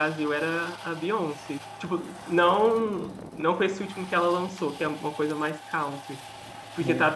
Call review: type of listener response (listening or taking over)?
listening